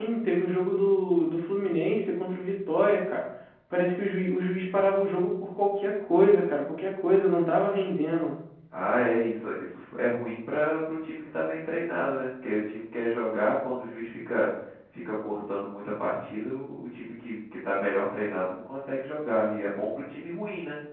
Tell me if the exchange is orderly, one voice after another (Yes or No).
Yes